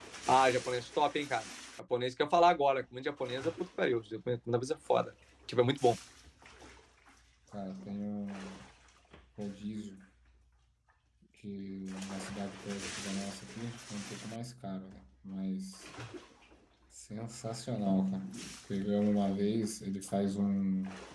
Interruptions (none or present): none